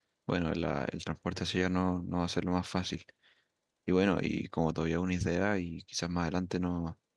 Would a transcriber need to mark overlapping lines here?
No

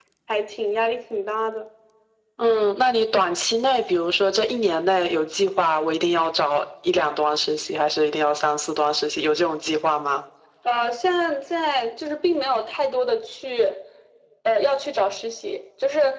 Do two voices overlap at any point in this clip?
No

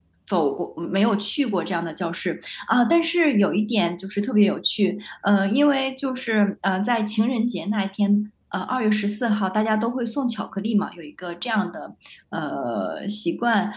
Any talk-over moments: No

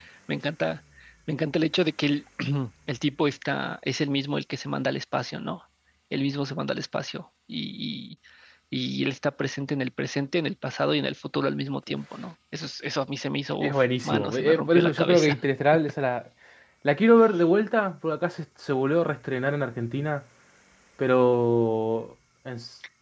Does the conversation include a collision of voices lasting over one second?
Yes, from 13.6 s

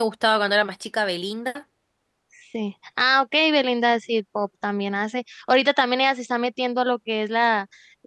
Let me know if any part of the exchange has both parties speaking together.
No

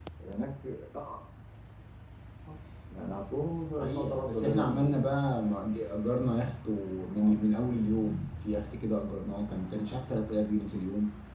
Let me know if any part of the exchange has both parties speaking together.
Yes, from 3.8 s

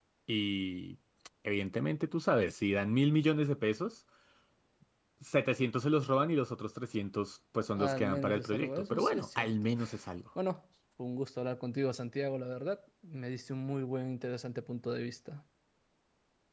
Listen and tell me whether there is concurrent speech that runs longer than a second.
Yes, from 7.8 s

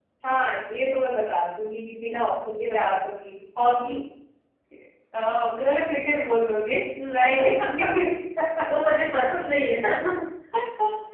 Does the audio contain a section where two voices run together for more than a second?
No

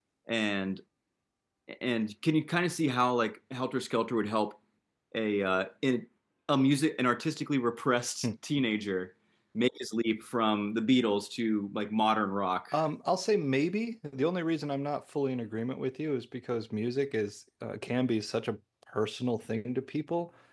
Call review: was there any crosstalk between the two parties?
No

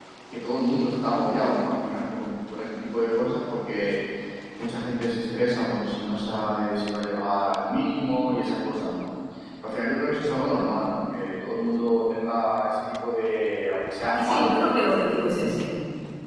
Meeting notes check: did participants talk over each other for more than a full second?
Yes, from 14.1 s

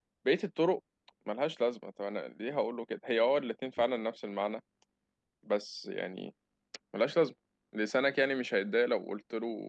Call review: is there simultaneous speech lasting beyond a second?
No

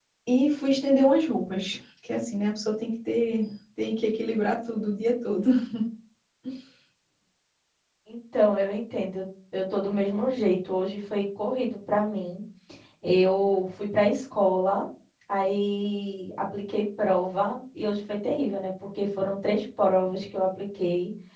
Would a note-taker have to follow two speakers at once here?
No

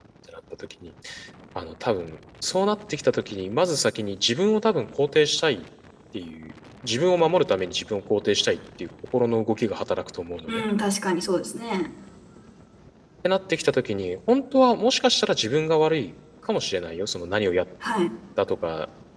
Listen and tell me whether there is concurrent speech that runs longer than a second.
No

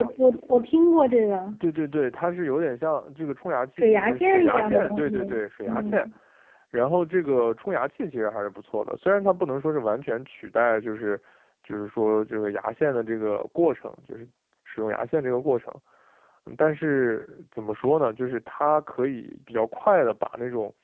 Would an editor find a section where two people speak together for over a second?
Yes, from 3.8 s

